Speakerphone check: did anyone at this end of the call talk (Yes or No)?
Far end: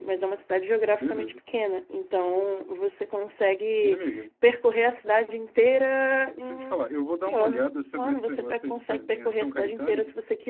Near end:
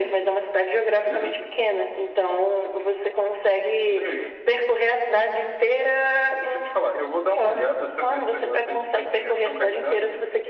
No